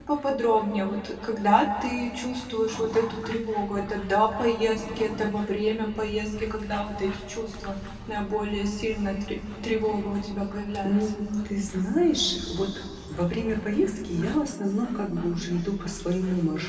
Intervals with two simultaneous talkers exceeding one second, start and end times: none

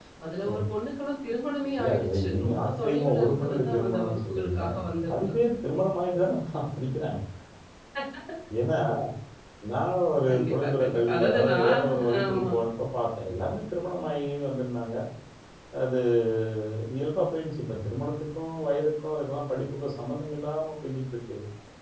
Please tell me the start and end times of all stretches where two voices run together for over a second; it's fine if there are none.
1.8-4.6, 10.3-12.5

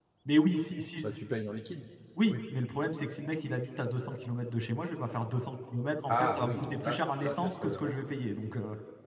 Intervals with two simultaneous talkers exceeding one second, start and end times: 6.1-7.9

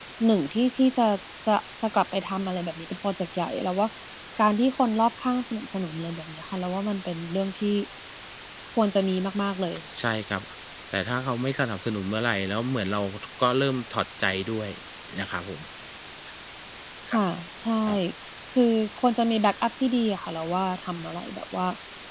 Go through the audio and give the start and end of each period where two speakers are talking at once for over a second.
none

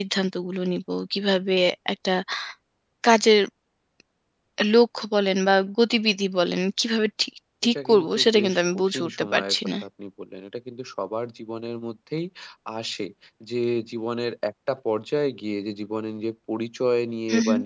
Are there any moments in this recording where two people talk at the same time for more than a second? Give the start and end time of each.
7.8-9.6

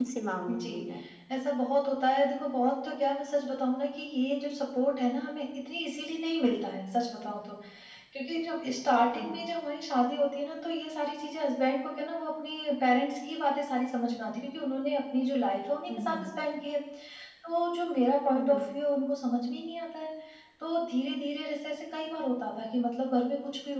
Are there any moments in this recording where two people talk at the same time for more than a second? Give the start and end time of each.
none

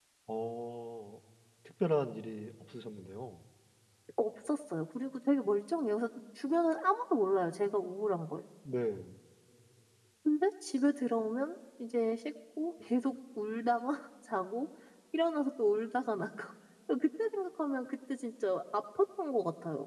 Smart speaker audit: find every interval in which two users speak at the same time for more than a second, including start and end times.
none

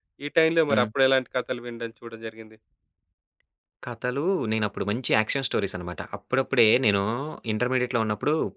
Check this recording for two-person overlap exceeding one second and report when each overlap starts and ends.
none

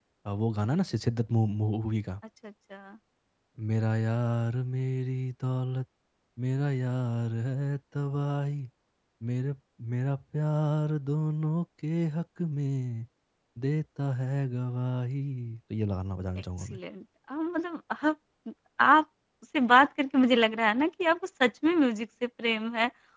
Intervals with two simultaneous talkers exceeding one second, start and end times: none

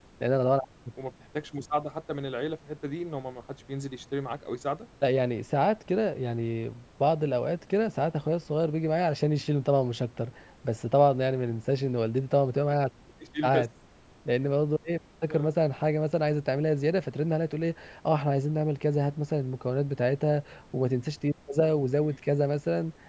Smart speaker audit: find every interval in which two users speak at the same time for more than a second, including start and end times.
none

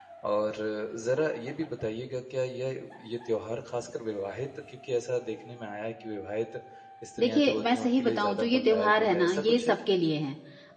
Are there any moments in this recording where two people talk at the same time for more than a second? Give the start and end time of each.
7.2-9.9

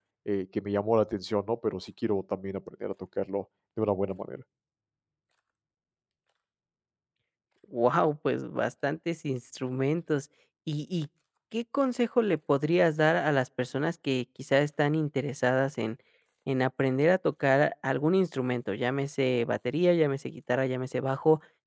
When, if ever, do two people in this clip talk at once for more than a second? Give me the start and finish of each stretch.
none

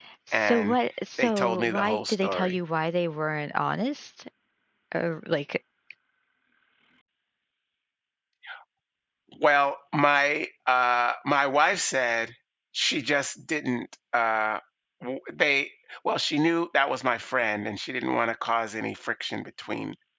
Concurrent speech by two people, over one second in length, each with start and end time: 1.2-2.5

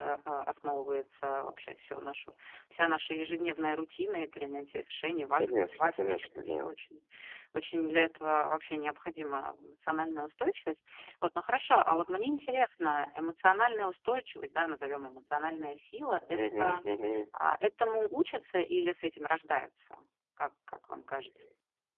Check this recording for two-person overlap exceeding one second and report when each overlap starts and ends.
5.4-6.6

